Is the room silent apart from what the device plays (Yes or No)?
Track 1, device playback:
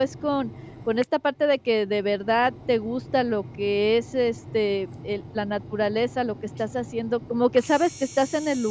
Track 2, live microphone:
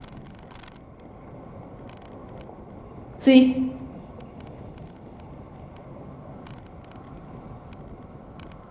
No